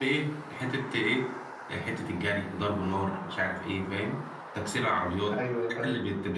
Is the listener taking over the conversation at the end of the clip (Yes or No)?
No